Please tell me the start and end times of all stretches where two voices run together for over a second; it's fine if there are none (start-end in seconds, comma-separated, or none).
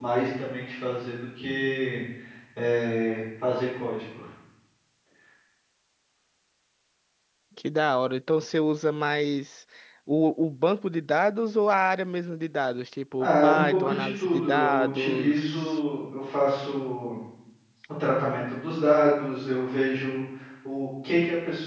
13.2-15.8